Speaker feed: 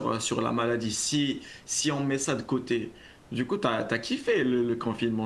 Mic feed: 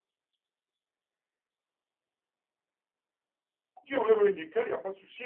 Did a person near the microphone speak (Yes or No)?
Yes